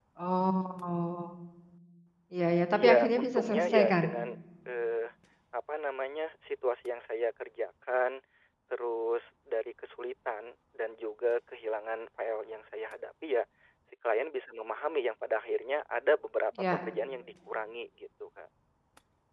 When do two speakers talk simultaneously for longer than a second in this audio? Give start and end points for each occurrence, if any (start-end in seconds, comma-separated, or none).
2.8-4.0